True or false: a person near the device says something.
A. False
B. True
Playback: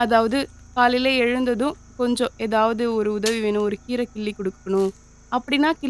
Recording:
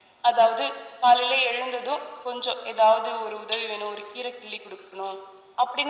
A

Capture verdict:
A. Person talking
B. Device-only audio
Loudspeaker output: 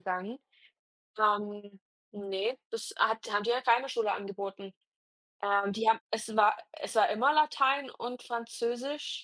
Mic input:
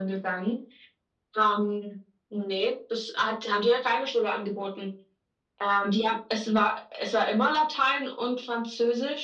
B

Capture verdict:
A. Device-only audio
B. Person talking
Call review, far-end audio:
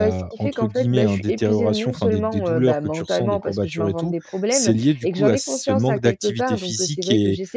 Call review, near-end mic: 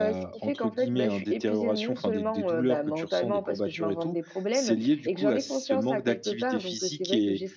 A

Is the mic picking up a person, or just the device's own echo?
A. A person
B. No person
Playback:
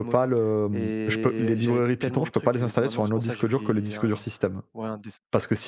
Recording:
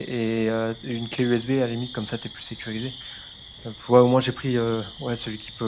A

